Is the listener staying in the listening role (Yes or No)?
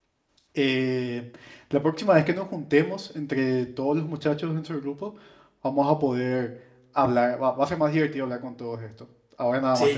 No